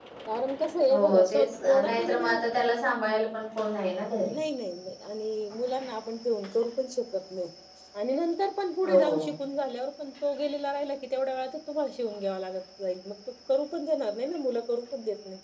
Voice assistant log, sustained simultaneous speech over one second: present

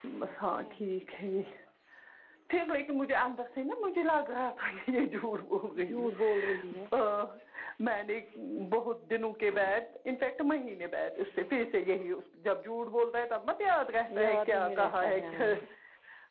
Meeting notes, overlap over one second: present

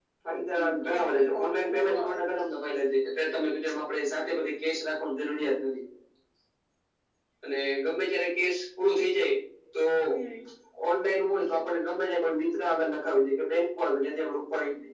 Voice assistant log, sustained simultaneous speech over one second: present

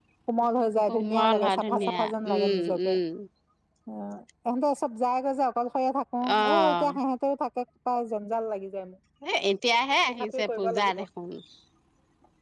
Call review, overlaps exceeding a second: present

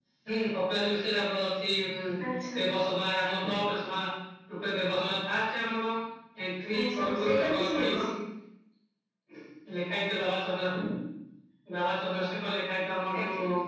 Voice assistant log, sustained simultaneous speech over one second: present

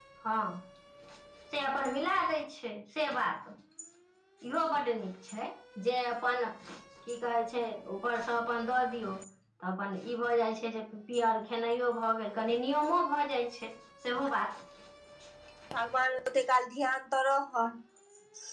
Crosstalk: none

